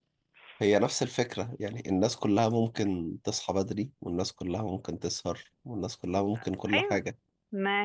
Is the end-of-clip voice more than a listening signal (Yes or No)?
Yes